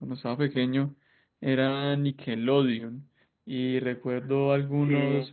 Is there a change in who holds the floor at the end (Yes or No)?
No